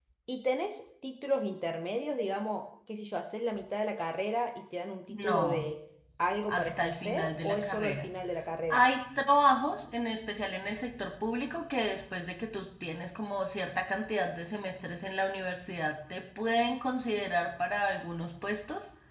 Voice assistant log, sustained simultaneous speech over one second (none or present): present